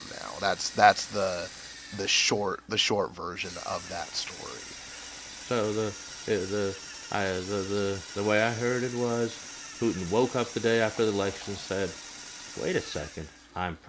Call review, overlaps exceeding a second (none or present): none